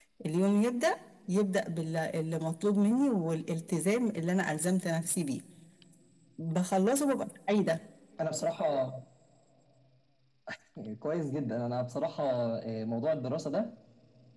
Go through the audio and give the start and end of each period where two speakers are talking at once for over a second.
none

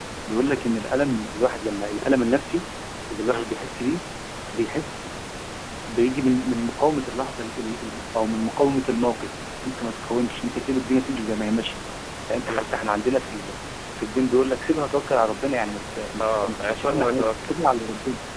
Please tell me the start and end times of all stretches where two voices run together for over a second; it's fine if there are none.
16.2-17.6

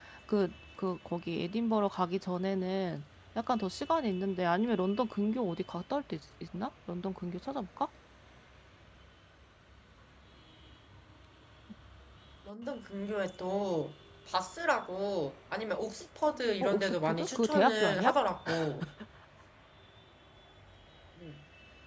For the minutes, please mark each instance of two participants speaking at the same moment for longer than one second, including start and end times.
16.6-18.1

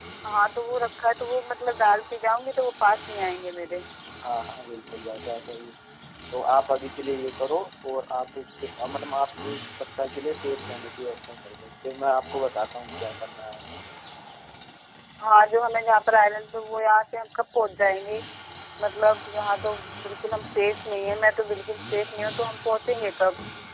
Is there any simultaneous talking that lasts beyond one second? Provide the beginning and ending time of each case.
none

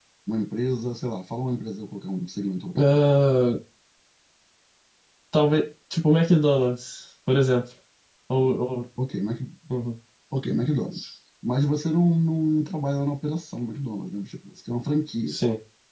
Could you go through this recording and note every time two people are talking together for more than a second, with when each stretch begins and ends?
none

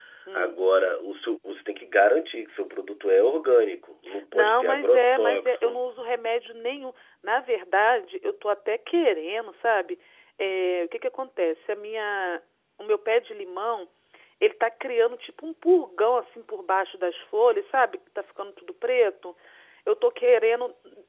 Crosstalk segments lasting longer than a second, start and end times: 4.3-5.8

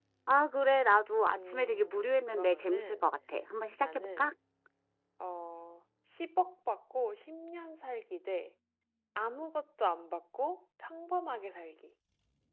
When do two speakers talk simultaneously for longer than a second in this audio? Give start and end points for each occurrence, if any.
1.3-3.1

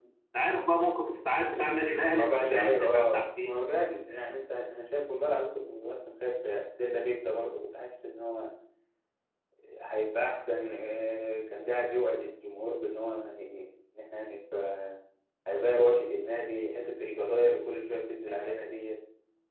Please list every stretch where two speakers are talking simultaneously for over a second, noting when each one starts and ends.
2.2-3.6

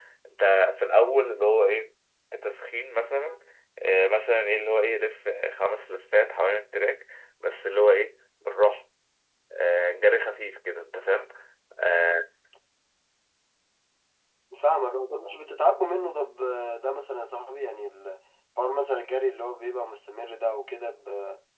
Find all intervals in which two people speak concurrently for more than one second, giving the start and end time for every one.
none

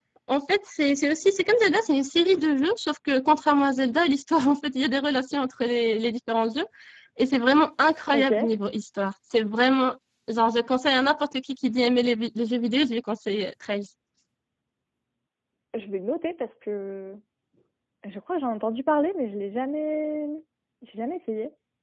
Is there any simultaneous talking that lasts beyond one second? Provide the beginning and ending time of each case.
none

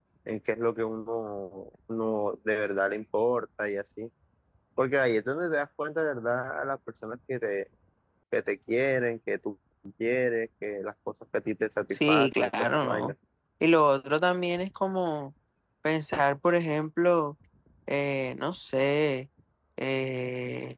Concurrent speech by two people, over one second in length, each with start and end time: 11.9-13.1

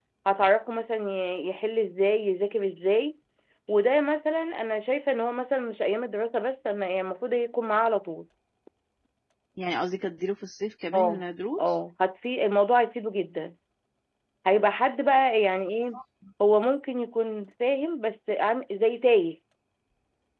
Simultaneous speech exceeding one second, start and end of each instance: none

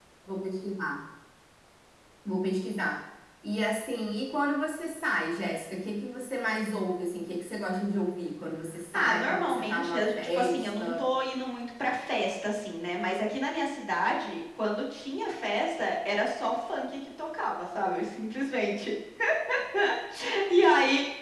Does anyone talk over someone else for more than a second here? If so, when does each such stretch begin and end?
8.9-11.1

